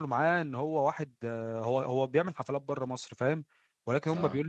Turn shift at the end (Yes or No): No